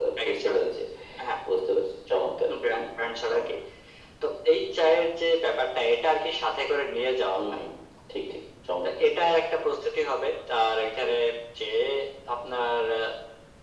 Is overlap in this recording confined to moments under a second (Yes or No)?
Yes